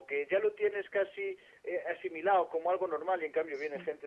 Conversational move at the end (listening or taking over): listening